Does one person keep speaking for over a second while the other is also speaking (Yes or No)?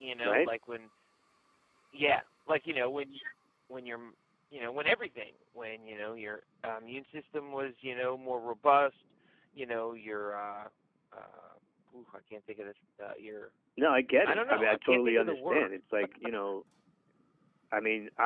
Yes